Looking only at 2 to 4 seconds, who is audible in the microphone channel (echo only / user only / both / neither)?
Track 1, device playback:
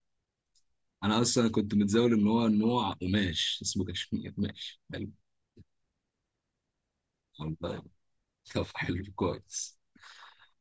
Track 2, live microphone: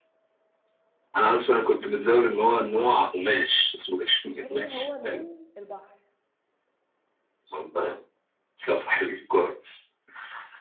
echo only